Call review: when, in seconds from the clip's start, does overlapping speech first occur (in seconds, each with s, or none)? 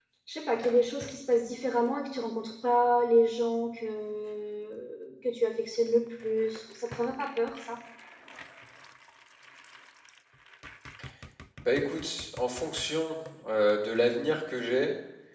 none